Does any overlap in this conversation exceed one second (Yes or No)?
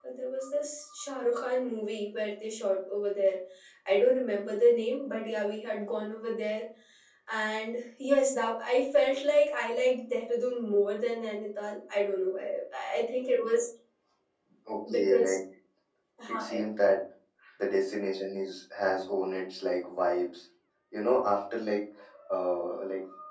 No